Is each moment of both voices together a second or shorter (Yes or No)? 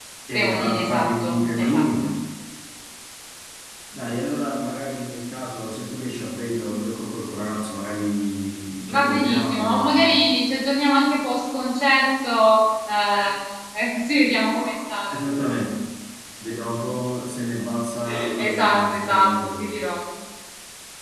No